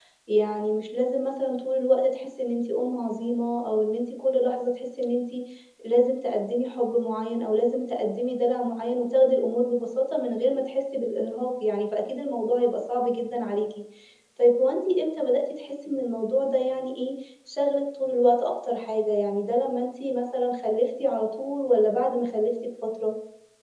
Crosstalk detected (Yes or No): No